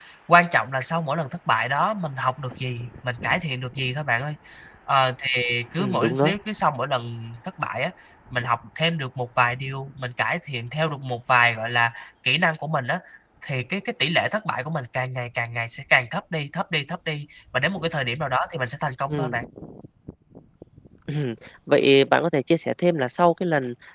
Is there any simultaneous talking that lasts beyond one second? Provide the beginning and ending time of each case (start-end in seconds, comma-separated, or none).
none